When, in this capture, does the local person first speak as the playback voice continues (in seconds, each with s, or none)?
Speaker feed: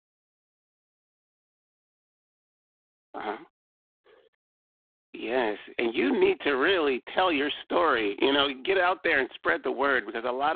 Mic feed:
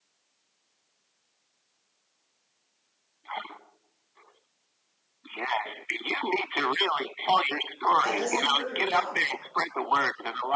8.0 s